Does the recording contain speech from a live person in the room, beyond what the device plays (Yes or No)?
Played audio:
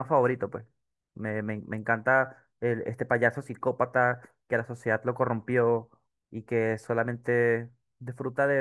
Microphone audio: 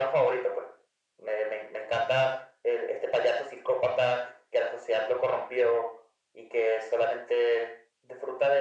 No